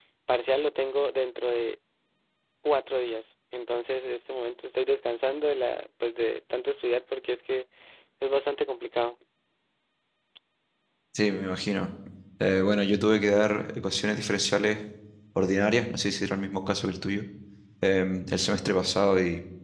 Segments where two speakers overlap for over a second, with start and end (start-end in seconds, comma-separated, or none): none